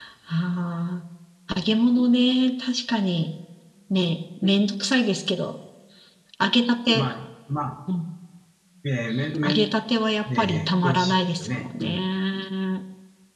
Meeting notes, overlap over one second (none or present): present